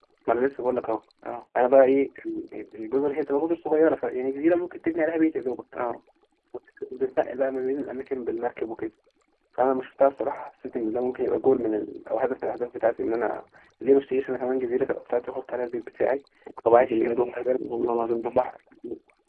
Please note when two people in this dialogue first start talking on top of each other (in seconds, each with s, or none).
16.7 s